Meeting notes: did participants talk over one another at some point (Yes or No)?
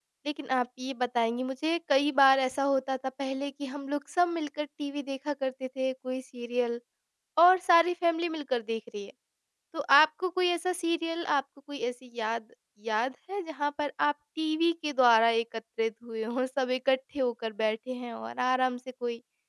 No